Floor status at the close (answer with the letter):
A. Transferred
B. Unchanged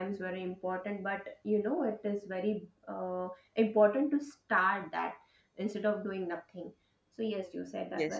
A